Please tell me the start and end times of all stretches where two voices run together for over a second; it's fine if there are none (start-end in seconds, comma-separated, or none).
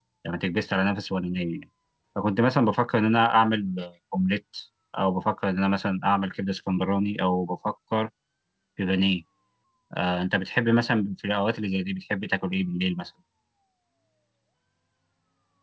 none